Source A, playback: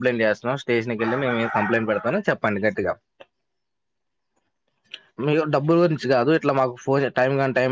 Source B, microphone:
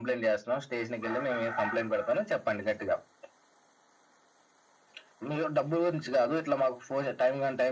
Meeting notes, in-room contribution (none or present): none